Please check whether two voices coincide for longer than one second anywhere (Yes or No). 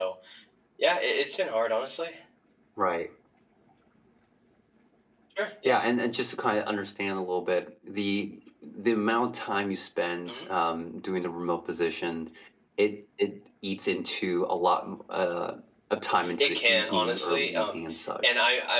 Yes